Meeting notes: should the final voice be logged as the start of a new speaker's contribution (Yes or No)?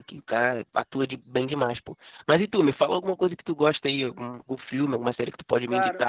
Yes